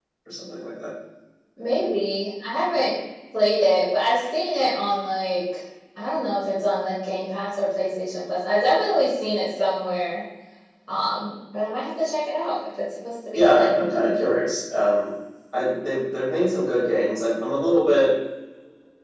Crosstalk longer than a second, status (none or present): none